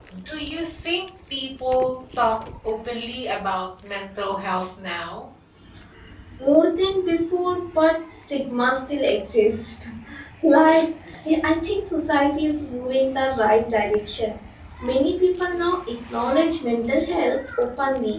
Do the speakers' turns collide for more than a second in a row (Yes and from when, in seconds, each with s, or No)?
No